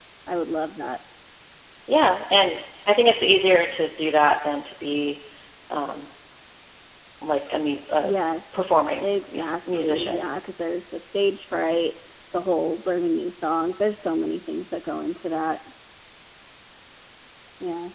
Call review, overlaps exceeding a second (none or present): present